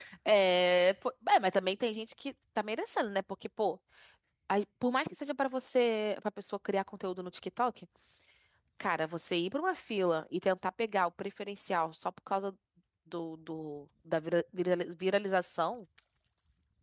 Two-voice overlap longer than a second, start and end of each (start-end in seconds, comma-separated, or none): none